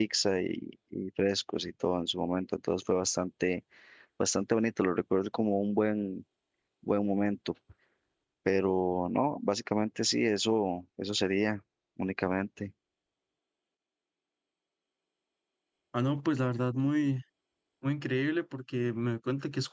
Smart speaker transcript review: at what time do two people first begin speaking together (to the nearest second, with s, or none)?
none